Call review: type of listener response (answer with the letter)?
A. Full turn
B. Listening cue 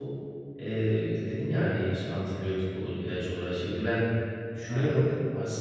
B